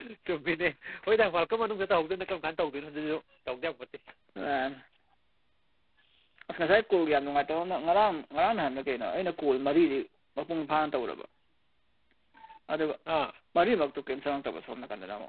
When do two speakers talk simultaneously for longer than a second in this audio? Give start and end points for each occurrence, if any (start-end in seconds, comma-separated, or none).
none